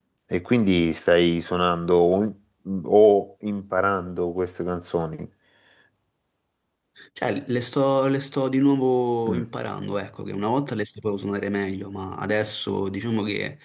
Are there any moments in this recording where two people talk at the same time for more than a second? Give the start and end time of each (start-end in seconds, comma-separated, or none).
none